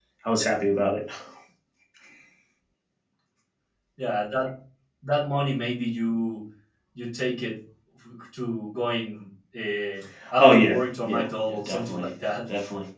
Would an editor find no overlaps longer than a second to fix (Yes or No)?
No